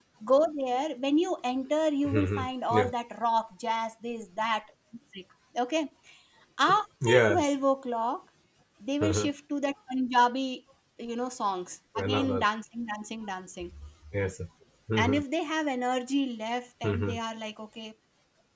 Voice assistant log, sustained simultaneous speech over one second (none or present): none